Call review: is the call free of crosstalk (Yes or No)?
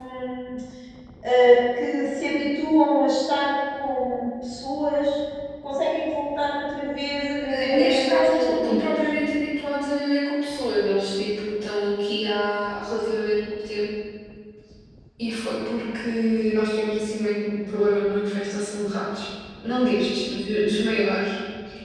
No